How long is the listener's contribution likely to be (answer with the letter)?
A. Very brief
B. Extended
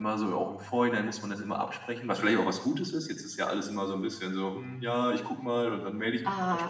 B